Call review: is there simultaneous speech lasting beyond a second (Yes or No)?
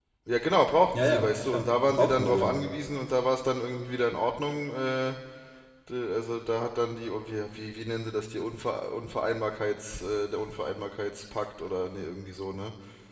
Yes